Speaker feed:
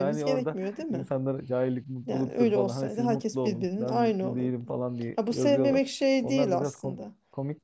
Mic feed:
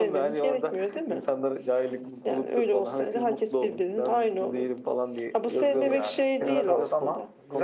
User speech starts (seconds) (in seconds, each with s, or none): 5.6 s